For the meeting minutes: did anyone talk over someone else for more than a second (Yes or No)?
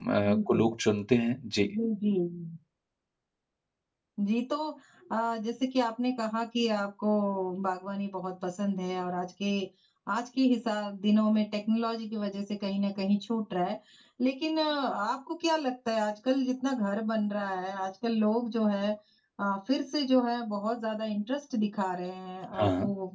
No